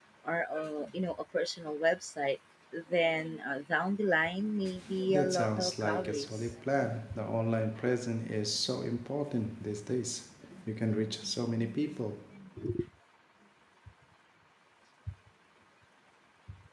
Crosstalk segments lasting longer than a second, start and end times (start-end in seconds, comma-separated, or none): 5.1-6.6